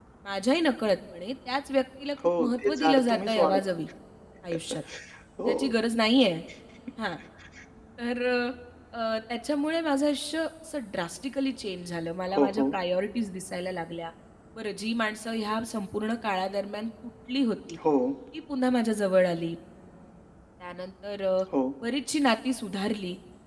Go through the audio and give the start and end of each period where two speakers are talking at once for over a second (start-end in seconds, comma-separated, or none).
2.4-3.6